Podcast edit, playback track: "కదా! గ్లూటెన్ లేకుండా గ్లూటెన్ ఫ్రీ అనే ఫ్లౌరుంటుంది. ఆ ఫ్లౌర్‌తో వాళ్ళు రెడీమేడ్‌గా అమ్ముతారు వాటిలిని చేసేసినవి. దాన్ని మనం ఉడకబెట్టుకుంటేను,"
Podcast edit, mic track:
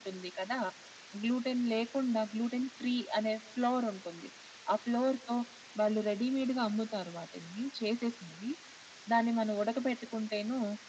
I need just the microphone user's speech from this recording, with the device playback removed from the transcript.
none

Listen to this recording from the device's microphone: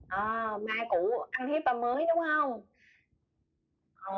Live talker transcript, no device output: none

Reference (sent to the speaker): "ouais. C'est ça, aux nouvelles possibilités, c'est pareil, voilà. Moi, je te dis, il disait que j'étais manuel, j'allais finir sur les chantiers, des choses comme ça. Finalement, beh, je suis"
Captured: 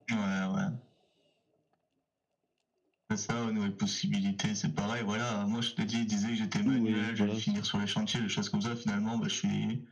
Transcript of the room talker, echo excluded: Mmh, oui, voilà, c'est

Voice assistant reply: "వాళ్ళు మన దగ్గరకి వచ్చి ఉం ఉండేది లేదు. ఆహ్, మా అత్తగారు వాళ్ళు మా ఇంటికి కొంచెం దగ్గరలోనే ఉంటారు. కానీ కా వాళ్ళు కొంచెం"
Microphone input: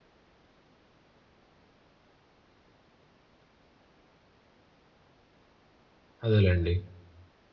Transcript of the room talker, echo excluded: అదేలెండి.

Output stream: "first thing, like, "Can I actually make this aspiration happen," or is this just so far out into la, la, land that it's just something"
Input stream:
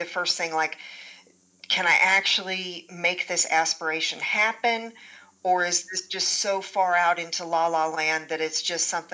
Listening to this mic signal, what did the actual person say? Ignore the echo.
none

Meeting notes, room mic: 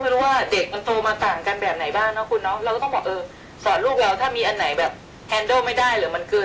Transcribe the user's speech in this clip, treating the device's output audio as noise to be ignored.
none

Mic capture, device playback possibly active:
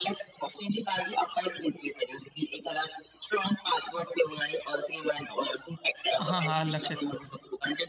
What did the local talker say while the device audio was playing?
हां, हां, आलं लक्षात.

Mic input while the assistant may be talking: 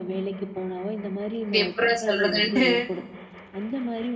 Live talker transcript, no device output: இது எப்புட்றா சொல்றதுன்ட்டு.

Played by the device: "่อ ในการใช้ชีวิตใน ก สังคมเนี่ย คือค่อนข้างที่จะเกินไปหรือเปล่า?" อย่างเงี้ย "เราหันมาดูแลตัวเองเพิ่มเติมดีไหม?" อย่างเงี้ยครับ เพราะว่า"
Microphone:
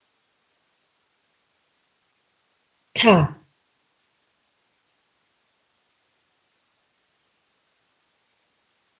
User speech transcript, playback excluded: ค่ะ

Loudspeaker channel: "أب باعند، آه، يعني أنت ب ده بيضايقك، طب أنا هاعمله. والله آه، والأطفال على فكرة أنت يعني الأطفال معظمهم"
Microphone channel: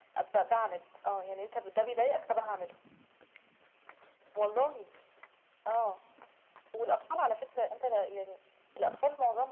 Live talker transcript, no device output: none

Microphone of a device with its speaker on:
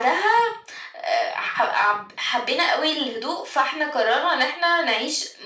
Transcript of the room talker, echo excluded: none

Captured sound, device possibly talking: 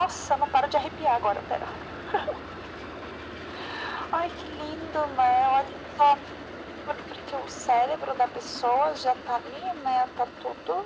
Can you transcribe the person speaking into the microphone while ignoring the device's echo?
none

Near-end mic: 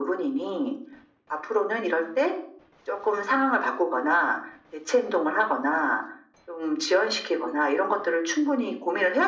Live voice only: none

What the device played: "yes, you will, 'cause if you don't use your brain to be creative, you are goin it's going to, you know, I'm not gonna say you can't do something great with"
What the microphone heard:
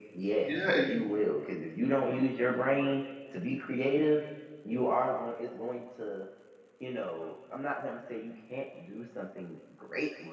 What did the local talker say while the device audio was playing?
Yeah, and y

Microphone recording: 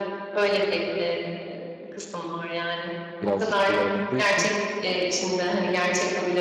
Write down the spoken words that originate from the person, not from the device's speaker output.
biraz ciddiye alındığı için

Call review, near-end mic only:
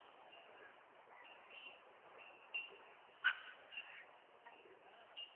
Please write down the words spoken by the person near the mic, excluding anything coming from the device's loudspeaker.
none

